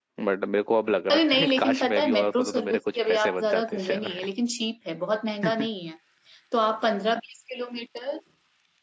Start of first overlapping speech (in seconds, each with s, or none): 1.1 s